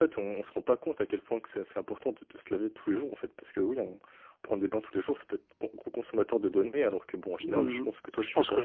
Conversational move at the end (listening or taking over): taking over